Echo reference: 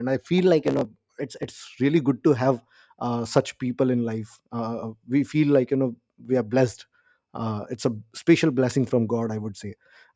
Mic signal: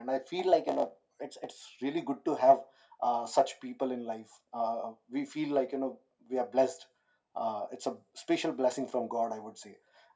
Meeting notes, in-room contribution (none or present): none